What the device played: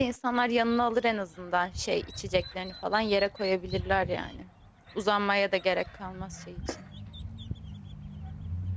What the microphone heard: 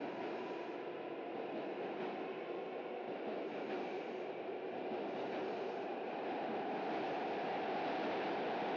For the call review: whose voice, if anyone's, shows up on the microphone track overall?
neither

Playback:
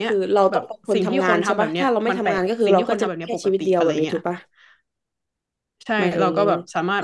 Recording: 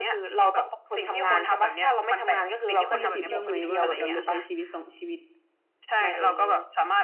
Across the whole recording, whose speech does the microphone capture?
both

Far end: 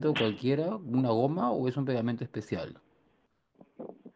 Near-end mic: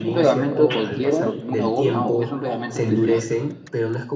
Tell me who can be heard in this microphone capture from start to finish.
both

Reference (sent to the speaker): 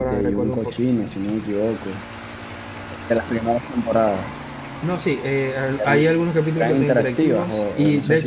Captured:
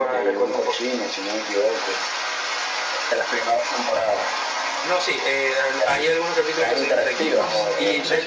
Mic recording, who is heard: both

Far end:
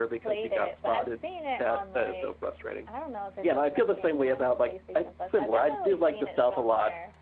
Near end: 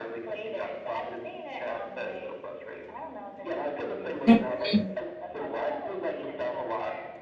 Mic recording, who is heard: both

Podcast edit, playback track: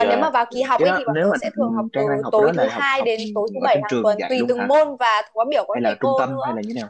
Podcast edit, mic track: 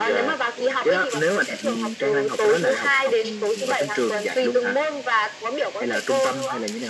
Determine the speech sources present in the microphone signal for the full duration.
echo only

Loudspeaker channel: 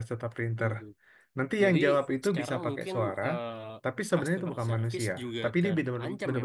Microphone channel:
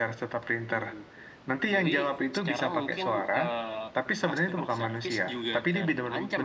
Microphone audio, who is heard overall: echo only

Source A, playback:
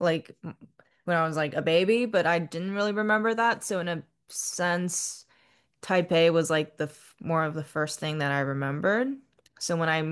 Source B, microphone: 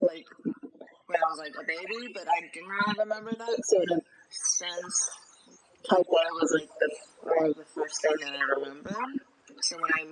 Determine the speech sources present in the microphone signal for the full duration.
echo only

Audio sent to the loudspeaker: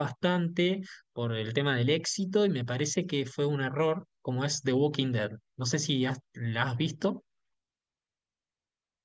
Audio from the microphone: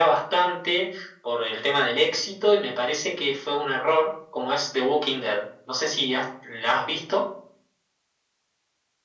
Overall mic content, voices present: echo only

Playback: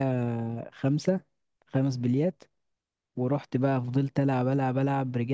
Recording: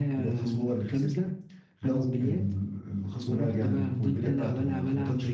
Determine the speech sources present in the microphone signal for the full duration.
both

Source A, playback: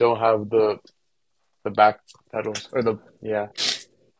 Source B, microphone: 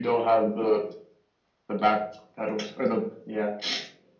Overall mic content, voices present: echo only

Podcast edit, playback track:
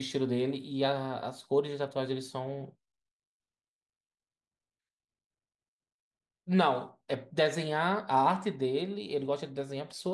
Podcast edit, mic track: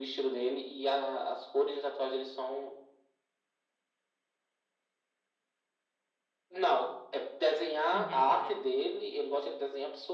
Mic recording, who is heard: both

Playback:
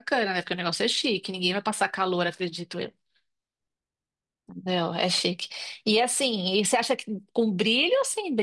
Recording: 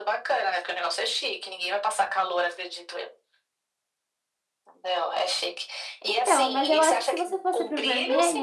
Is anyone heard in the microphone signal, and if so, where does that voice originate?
both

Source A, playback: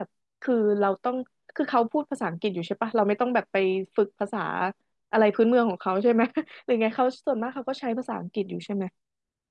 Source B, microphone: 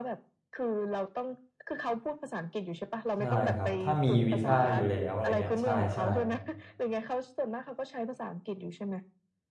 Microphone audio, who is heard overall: both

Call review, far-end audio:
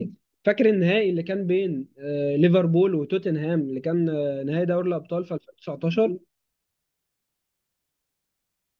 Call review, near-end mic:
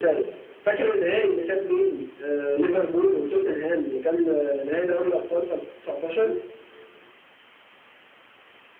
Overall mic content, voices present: echo only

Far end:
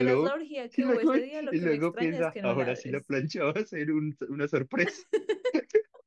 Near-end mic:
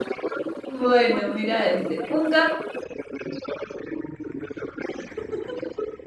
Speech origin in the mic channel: both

